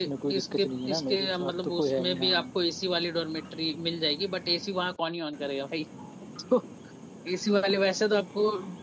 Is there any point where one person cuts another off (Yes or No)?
Yes